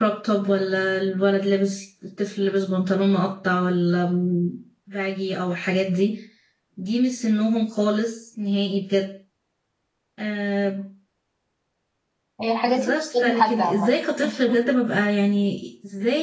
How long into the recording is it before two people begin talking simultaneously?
12.6 s

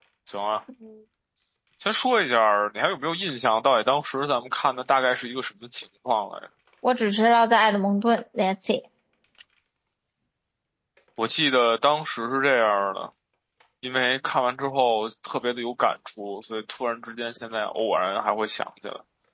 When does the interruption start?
none

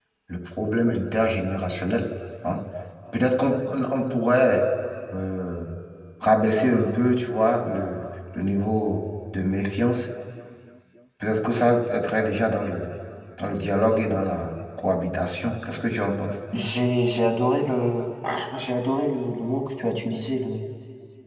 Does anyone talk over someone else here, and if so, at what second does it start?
none

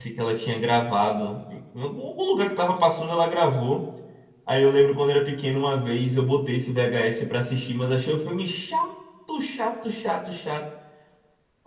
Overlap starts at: none

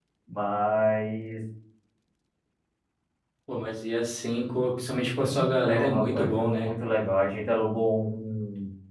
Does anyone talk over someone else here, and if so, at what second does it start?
5.2 s

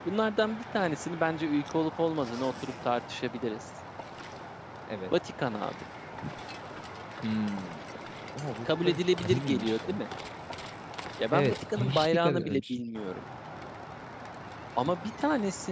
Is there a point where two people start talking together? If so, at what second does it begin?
8.7 s

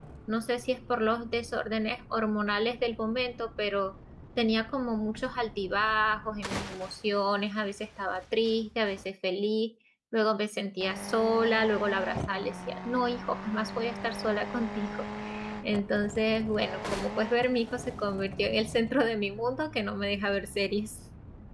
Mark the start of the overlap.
none

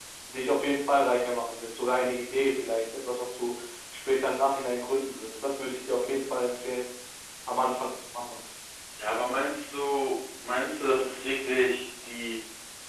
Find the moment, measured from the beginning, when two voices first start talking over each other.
none

